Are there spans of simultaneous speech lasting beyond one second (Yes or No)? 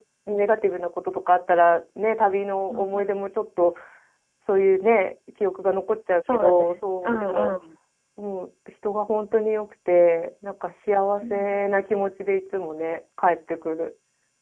No